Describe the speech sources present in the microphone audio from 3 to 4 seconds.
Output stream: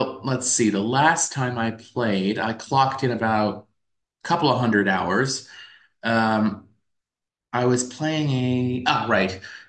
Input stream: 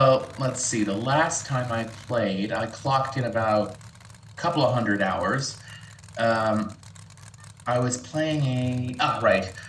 echo only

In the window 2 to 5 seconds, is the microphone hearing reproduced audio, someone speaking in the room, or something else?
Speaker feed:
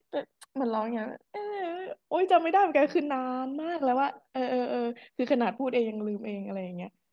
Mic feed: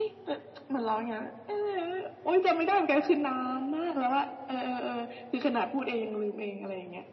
echo only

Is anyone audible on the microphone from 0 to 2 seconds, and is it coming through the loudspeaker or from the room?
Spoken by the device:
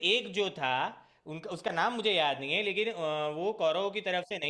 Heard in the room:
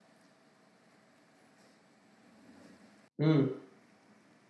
neither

